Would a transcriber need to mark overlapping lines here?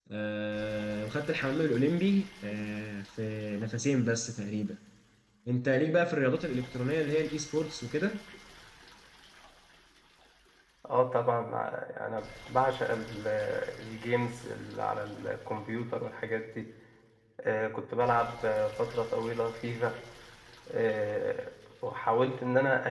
No

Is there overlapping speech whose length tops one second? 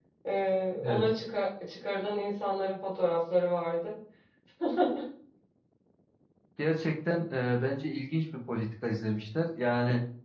No

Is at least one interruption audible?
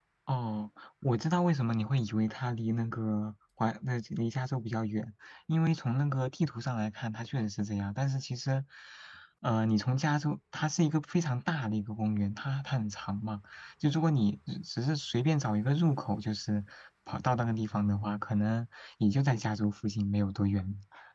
No

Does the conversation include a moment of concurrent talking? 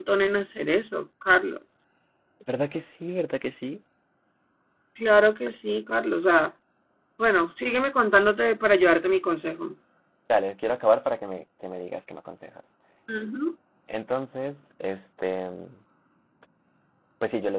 No

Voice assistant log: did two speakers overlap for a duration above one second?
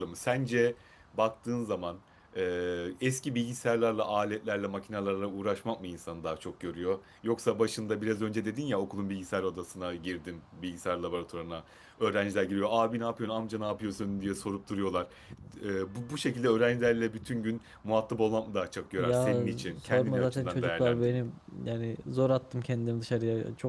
Yes, from 19.0 s

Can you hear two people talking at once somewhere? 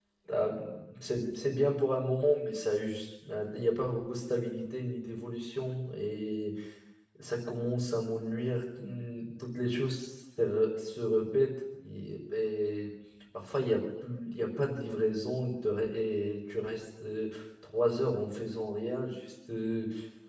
No

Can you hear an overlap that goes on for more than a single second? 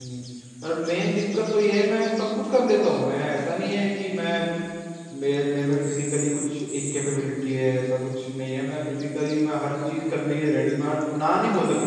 No

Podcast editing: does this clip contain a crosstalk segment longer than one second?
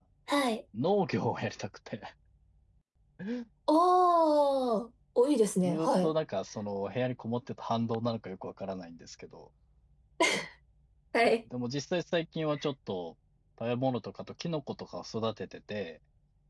No

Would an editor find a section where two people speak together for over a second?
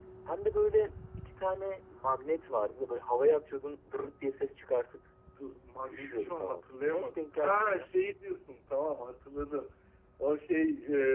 Yes, from 5.9 s

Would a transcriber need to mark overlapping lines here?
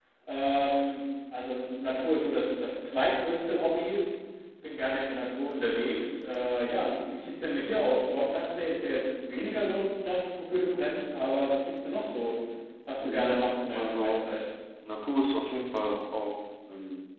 Yes, from 13.0 s

